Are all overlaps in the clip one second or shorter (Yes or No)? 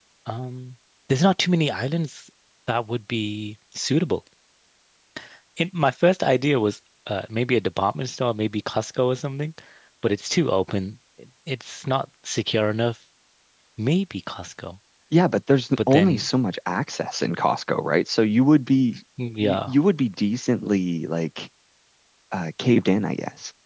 Yes